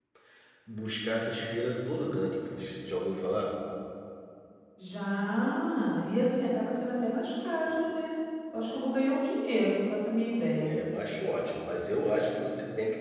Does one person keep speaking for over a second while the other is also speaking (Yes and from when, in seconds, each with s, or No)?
No